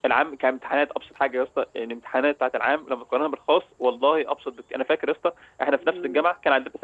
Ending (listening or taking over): listening